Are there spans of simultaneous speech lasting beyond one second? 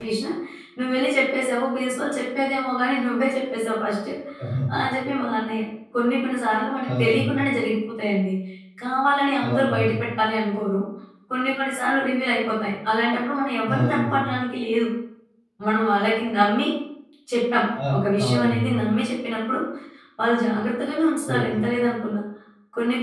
No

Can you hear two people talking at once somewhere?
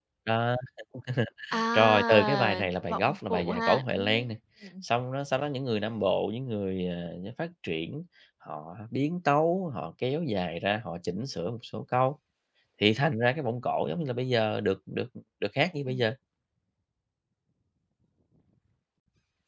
Yes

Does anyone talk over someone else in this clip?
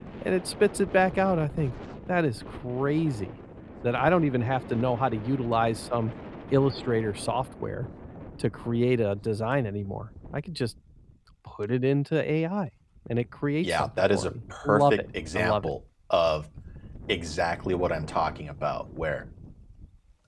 Yes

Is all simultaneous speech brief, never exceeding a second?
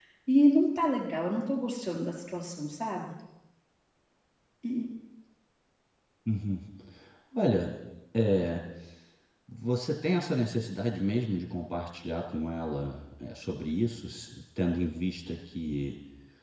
Yes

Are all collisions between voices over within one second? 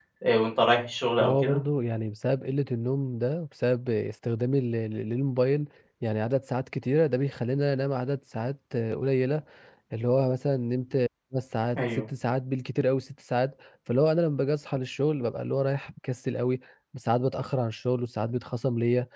Yes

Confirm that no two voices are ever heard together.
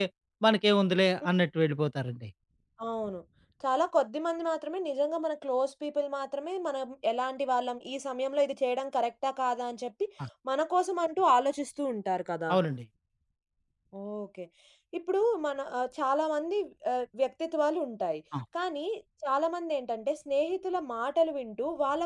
Yes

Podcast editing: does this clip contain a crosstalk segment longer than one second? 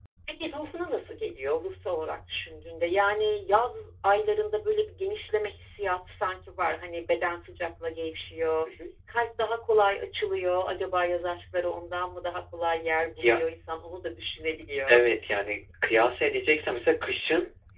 No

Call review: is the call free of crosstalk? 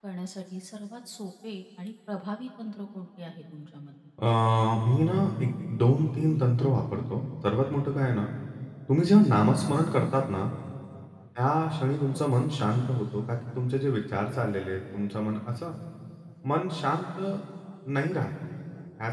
Yes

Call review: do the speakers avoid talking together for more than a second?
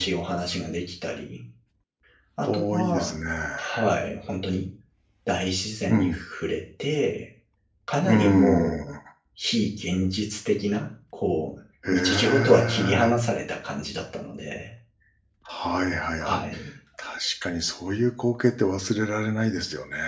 No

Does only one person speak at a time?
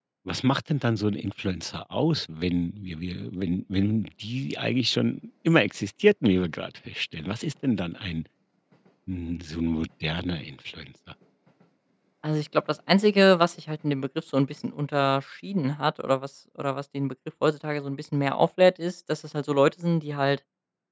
Yes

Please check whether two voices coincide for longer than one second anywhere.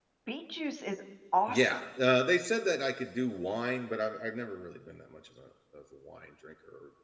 No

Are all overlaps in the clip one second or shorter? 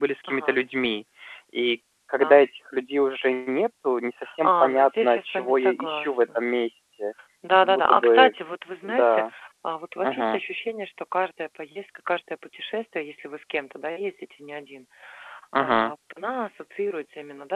No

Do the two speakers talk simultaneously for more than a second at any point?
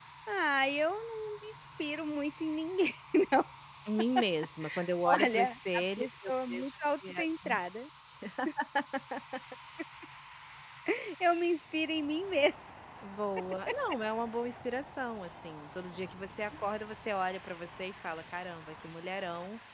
Yes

